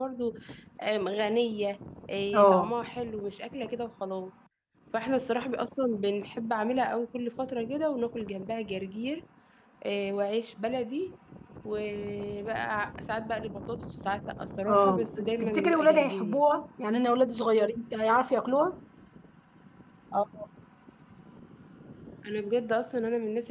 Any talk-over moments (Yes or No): Yes